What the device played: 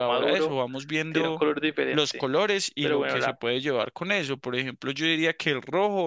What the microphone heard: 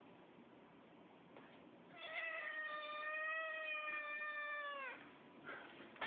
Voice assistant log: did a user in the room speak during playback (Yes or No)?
No